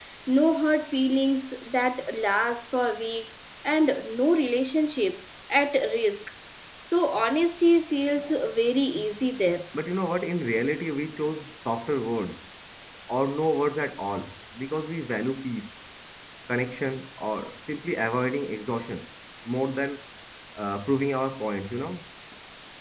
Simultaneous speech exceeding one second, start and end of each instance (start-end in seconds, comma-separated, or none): none